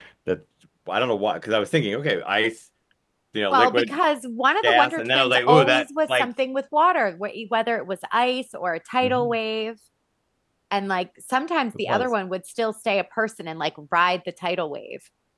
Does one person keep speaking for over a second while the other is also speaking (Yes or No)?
Yes